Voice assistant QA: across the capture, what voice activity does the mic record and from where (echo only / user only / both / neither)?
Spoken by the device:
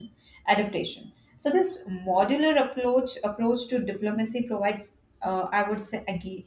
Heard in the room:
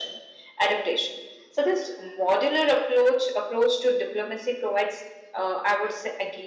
echo only